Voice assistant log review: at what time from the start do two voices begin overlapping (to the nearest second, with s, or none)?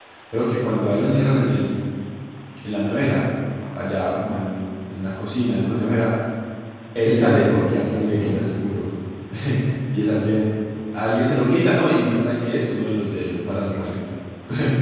7 s